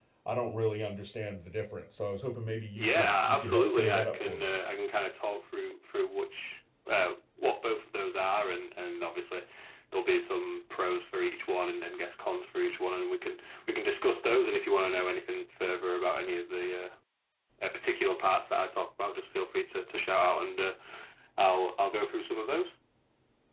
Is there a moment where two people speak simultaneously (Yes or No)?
Yes